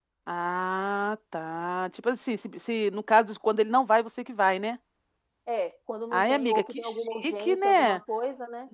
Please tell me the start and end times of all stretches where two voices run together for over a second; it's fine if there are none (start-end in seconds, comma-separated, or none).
6.1-8.0